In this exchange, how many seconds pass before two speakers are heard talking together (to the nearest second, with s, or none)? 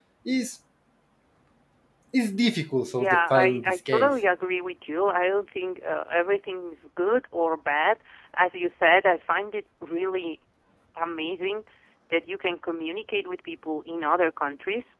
3 s